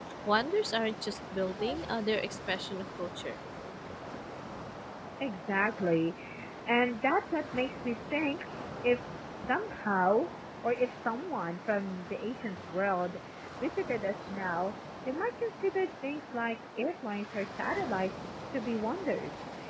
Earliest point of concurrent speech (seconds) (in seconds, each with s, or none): none